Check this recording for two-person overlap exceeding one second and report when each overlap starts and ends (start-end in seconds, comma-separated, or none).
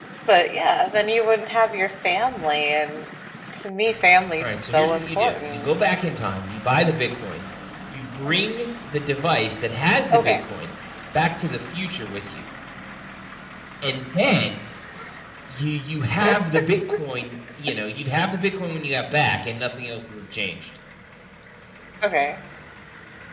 4.4-5.7